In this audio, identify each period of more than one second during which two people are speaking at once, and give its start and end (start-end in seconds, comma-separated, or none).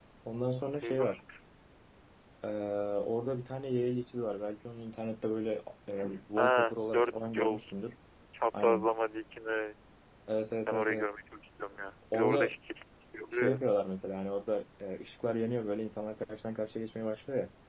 6.4-7.6